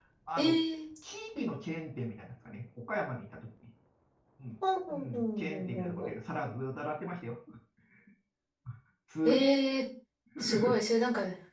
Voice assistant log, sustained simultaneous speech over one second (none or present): present